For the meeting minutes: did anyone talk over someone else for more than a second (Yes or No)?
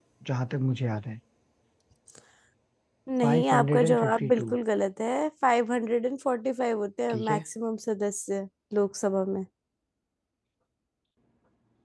Yes